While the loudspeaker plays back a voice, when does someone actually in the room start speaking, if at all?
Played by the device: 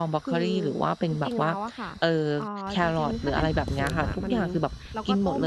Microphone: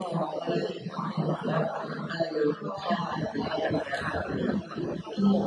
none

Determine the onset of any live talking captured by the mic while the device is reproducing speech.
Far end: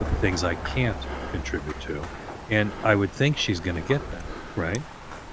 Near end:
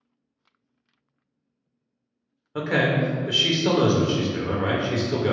2.5 s

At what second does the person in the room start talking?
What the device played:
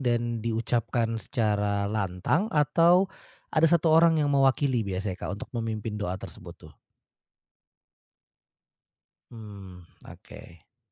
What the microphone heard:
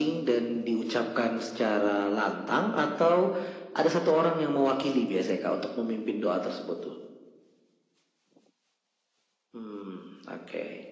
none

